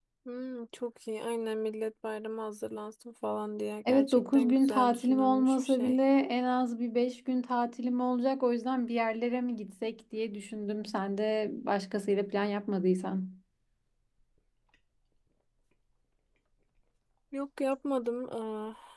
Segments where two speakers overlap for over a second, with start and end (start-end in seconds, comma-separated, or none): 3.9-6.0